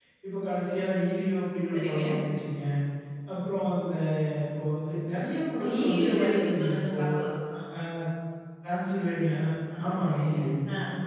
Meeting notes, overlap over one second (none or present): present